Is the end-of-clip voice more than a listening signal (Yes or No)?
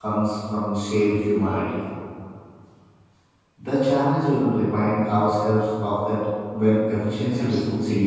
Yes